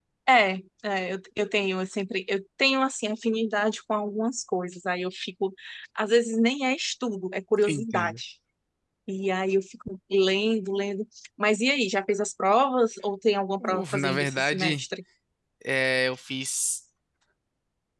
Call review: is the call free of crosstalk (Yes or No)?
No